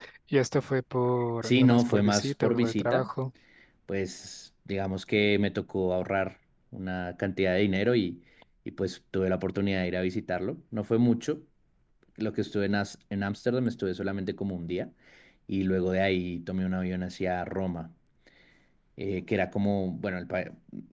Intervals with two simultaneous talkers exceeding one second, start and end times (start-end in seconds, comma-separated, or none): 1.4-3.1